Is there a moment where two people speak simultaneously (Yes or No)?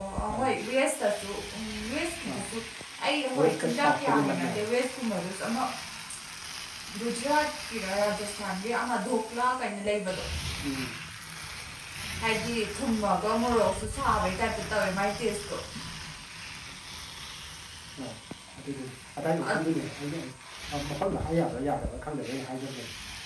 Yes